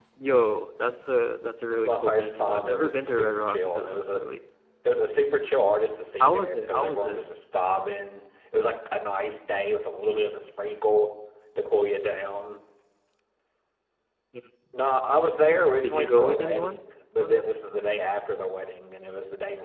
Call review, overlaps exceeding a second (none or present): present